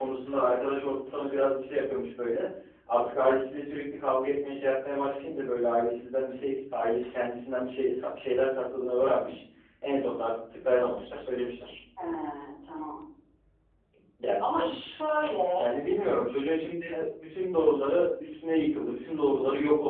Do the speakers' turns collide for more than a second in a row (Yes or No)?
No